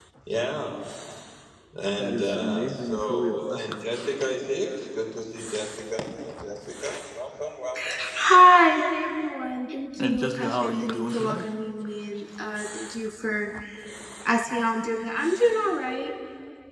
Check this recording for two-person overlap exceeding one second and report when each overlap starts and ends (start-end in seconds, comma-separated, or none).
2.0-3.8, 10.0-11.4